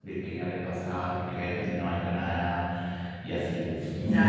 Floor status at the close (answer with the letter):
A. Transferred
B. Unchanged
A